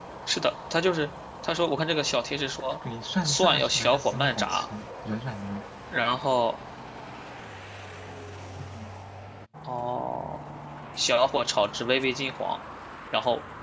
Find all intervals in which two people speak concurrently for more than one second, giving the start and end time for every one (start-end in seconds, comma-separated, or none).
3.2-4.7